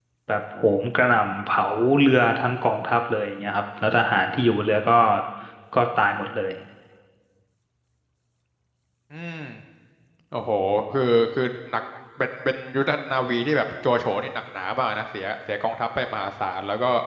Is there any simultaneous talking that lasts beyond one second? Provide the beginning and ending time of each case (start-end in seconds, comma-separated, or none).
none